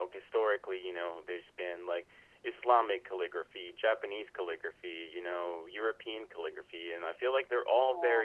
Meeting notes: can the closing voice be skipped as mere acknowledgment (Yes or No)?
Yes